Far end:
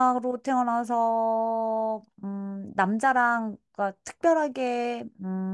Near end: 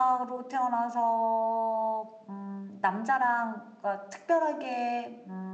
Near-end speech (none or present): none